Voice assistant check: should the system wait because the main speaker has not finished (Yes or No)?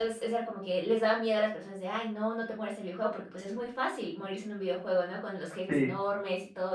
Yes